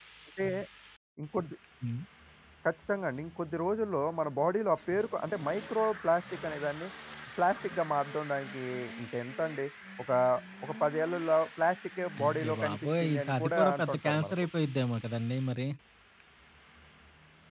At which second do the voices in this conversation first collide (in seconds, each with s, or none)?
12.2 s